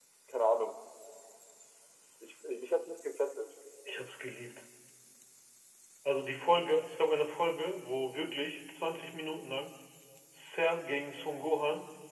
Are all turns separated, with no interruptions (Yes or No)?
Yes